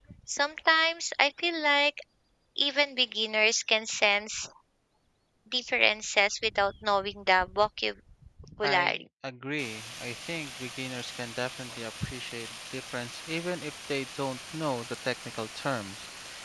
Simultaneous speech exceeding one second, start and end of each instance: none

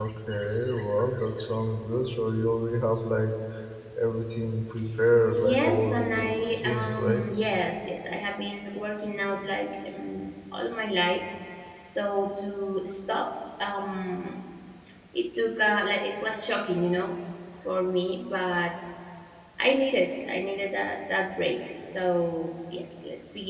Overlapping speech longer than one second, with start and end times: 5.3-7.2

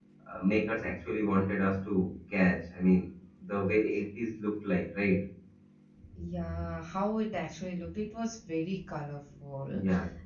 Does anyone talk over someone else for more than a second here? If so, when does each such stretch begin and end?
none

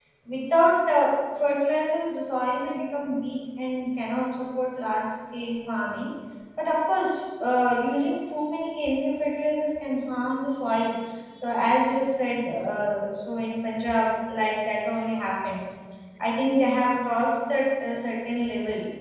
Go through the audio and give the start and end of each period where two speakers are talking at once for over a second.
none

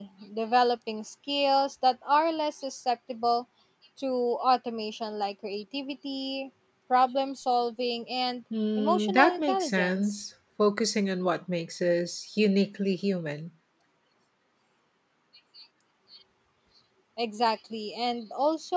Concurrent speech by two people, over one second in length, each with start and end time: 8.8-10.2

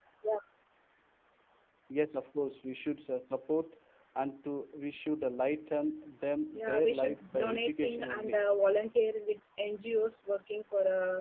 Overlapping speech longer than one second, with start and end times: 6.6-8.4

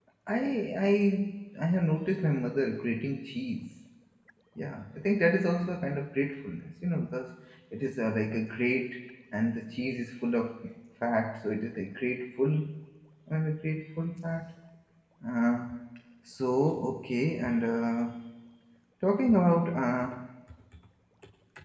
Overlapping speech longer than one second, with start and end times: none

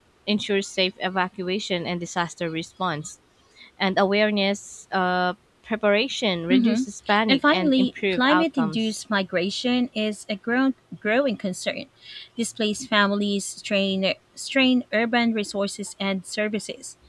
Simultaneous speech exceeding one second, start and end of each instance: 7.3-8.8

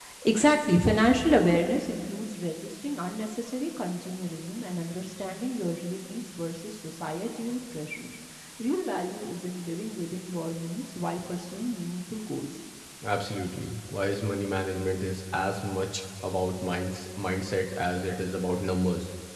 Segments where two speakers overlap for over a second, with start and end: none

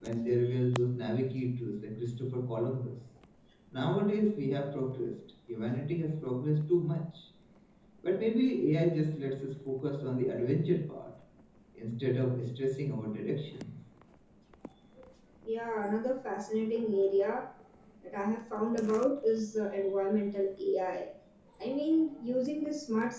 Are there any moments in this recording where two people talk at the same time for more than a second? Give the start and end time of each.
none

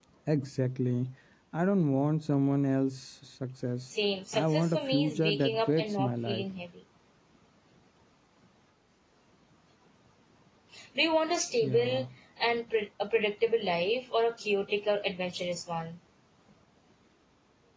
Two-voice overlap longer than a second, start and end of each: 4.3-6.4

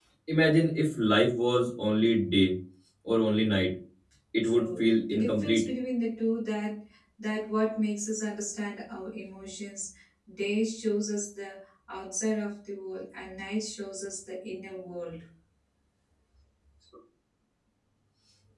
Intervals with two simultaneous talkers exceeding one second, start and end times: 4.4-5.7

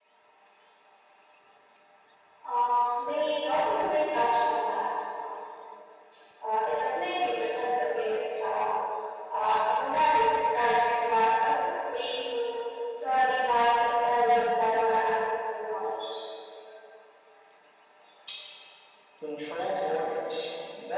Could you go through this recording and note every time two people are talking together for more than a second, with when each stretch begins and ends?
none

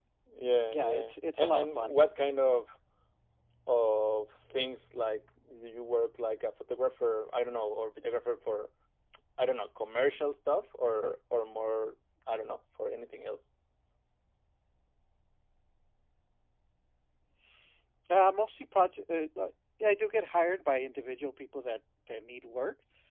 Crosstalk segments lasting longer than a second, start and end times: 0.7-2.0

